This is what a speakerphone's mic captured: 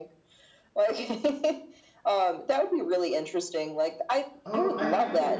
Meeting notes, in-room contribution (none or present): present